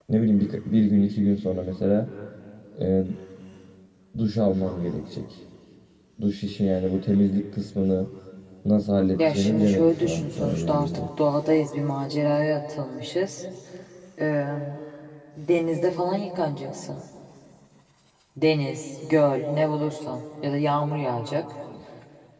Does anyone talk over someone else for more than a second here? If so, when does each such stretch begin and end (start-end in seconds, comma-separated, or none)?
9.2-11.0